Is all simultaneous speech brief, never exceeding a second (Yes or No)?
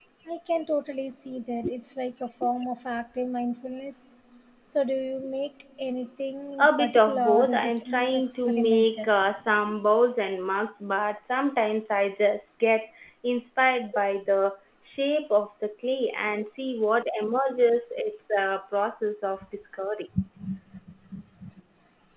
No